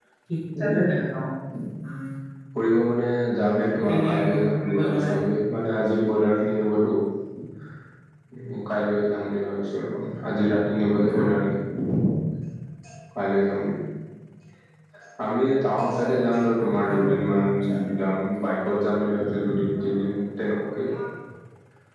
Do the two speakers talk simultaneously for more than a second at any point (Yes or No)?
Yes